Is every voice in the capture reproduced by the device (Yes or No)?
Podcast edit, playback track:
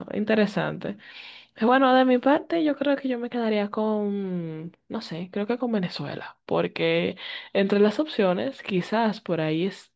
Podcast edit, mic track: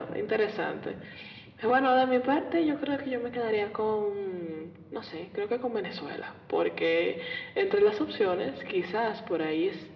Yes